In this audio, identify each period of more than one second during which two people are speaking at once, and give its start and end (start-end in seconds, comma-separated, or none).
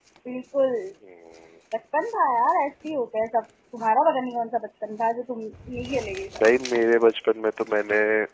none